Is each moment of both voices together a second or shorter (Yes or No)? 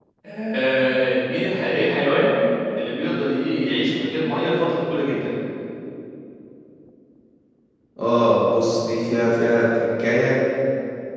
Yes